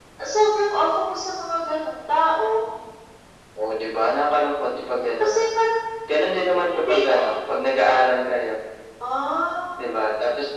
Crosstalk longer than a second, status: none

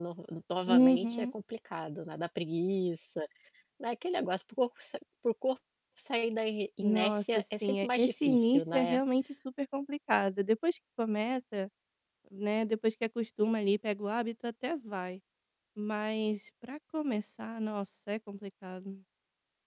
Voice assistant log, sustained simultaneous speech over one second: present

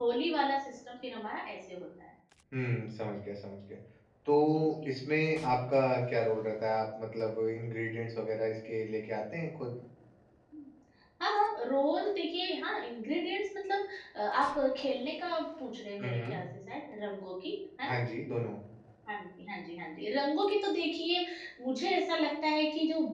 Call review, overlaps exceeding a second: none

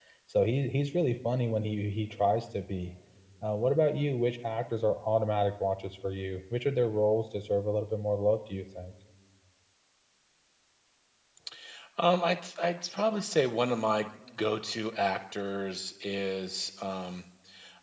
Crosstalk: none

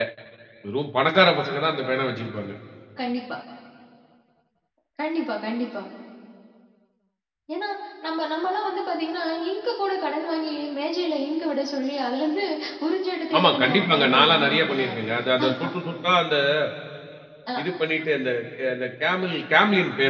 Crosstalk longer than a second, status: present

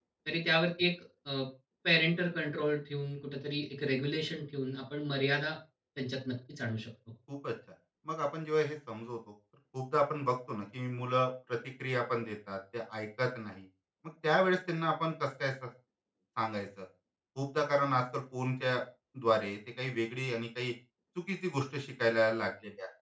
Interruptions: none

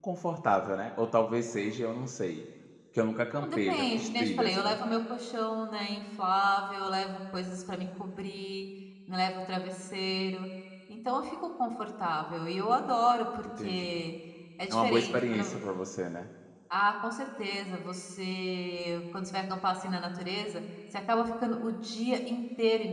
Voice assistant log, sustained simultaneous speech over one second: present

